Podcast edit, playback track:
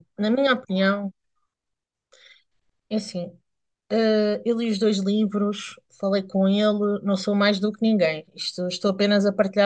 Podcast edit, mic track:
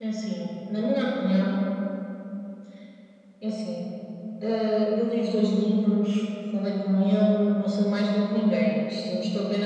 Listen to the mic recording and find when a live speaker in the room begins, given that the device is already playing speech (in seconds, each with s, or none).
none